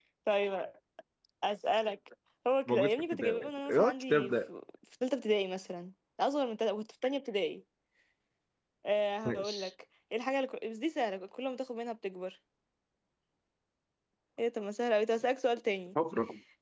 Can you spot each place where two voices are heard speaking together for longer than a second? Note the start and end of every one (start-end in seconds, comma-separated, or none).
2.7-4.3